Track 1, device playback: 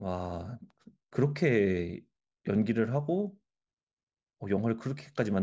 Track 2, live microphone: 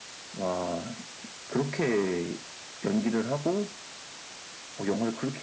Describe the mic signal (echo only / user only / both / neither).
echo only